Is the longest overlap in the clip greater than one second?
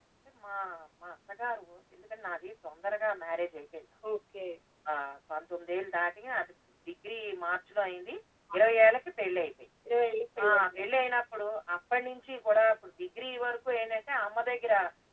No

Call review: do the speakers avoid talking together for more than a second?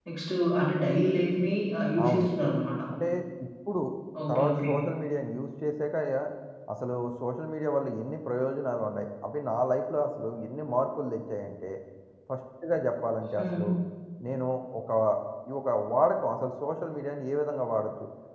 Yes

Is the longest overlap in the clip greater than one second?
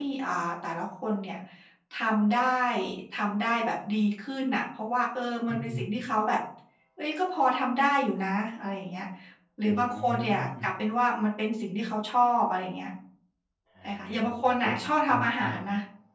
Yes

